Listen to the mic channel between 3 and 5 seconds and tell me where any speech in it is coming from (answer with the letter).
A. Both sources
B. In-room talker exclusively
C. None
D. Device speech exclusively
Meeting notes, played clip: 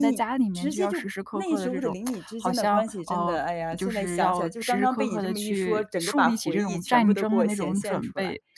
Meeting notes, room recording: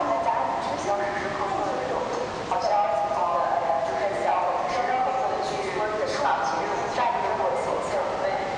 D